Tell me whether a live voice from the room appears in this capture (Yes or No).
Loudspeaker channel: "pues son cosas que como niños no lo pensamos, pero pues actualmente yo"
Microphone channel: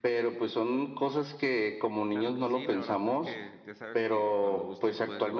Yes